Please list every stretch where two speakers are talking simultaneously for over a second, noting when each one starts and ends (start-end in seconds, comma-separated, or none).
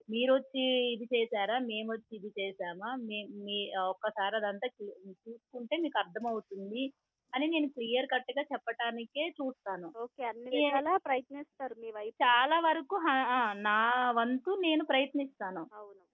none